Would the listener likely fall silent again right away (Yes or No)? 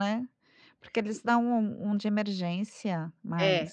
No